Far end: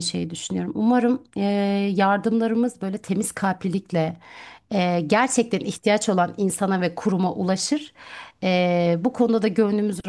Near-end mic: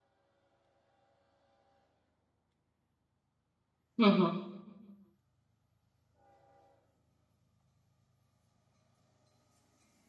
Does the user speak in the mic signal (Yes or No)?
Yes